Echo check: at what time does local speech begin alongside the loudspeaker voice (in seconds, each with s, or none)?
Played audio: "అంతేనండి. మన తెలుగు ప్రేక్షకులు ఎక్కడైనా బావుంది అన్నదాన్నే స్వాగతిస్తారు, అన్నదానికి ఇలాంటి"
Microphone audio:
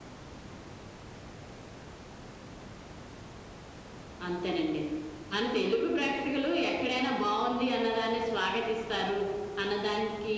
none